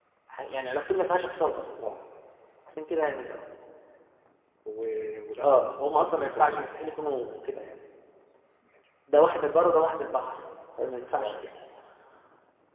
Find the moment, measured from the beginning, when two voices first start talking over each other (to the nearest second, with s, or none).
5 s